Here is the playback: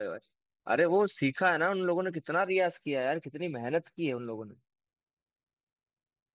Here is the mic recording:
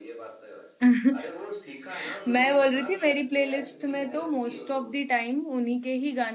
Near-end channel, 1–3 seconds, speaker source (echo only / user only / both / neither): both